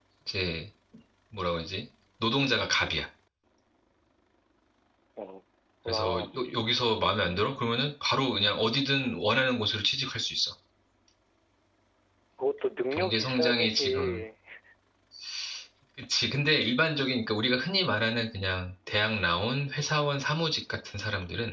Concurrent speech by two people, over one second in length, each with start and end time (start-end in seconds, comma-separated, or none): 12.9-14.2